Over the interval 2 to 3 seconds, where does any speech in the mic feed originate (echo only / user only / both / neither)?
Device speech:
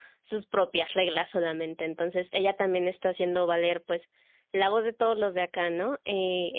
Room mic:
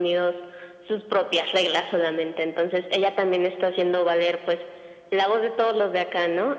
echo only